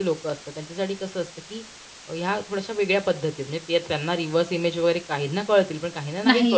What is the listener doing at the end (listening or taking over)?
listening